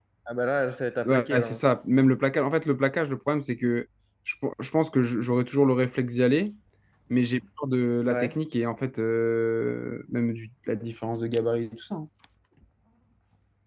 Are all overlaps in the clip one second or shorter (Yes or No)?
Yes